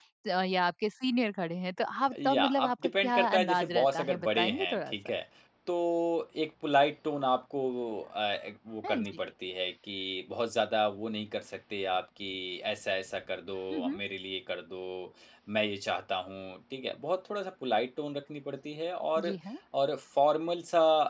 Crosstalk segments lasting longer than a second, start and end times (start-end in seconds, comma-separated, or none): 2.2-5.0